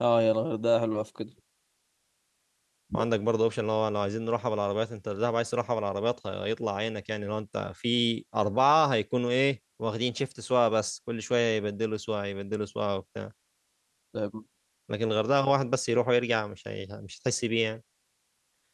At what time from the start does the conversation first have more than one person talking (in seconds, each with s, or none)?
none